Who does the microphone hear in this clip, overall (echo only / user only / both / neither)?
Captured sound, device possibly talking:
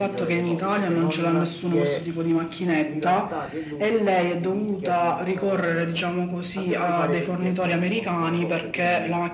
both